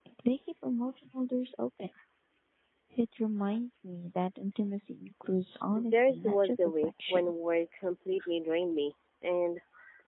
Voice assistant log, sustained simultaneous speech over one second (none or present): present